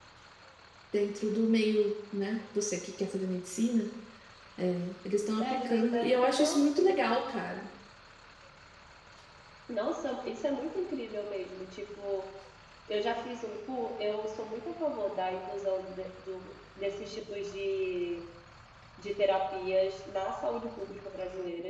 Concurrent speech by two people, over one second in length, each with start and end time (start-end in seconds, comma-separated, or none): 5.4-6.8